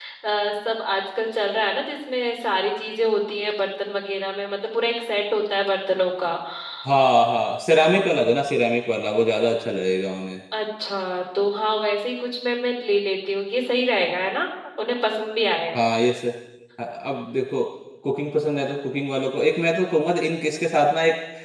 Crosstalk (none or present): none